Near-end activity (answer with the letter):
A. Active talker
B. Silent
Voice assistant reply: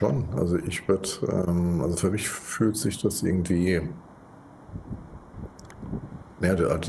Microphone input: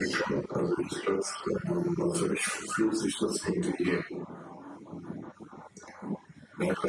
B